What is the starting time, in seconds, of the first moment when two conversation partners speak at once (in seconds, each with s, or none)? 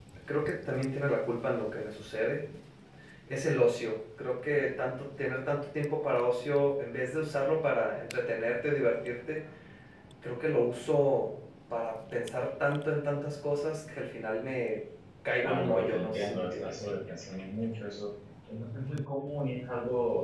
15.4 s